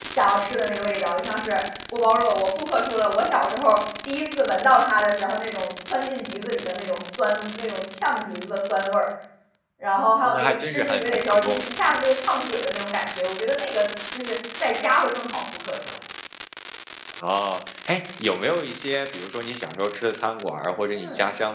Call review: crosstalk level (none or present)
present